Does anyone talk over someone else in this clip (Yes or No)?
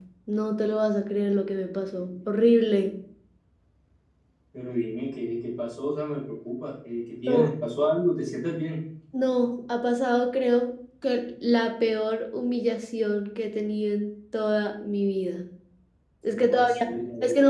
Yes